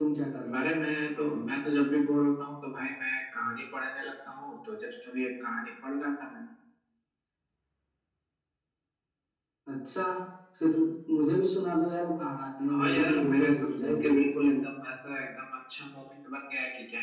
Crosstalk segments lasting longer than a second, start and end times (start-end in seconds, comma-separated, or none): 12.8-14.1